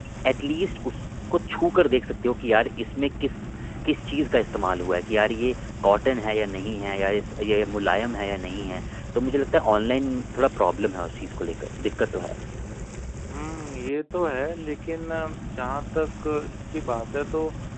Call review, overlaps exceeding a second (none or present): none